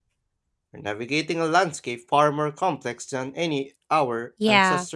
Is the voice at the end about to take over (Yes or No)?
Yes